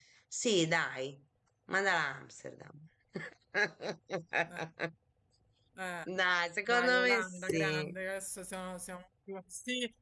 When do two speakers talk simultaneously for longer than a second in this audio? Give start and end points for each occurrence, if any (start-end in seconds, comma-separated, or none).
6.7-7.9